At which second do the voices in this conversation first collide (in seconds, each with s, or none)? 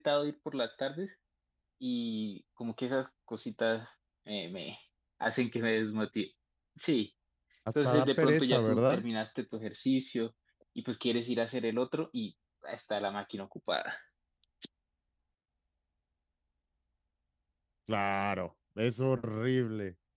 7.8 s